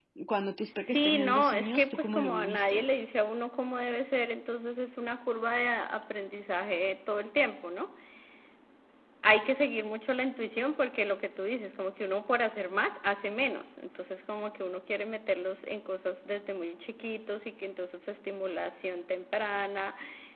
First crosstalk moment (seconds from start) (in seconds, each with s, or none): 0.8 s